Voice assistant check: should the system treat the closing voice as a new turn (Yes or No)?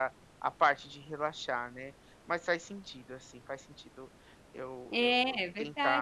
Yes